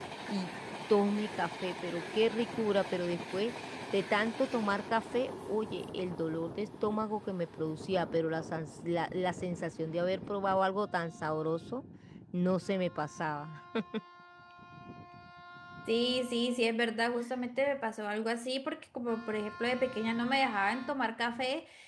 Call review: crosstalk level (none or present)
none